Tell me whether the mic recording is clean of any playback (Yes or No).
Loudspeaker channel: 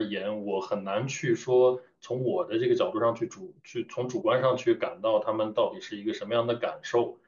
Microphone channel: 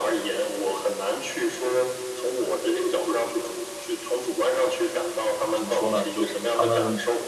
No